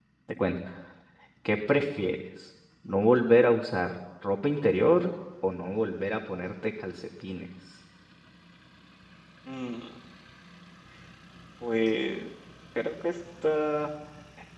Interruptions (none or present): none